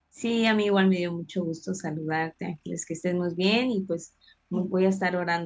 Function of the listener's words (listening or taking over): listening